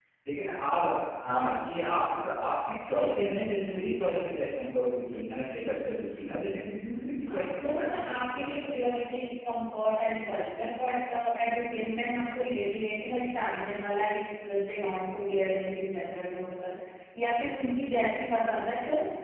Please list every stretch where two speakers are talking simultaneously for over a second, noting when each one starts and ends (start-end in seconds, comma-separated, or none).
7.3-8.7